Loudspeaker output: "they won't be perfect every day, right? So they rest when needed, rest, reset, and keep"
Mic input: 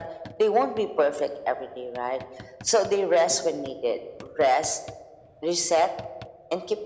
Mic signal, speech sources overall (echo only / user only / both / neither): echo only